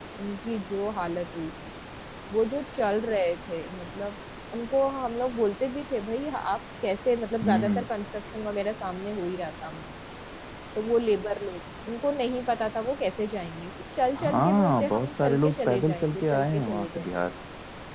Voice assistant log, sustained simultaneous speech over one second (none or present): present